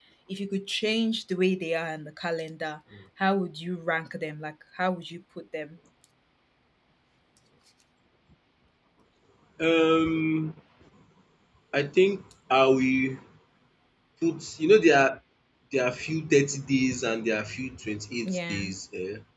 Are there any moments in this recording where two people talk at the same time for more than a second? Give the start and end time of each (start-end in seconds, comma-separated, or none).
none